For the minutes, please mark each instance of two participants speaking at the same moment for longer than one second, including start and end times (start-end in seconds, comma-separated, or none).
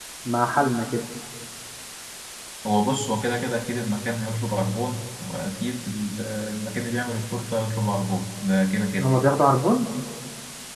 none